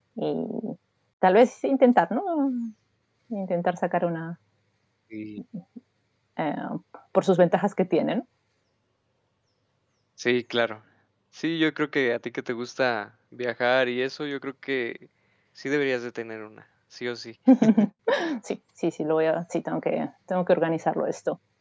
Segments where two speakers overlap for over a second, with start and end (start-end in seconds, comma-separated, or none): none